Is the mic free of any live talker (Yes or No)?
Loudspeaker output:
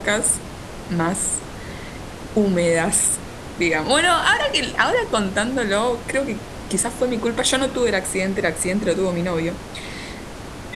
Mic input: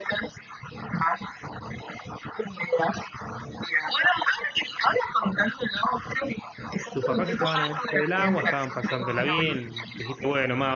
No